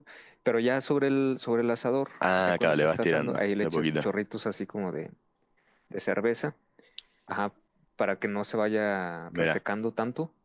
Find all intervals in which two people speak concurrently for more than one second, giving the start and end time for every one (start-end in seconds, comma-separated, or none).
2.4-4.1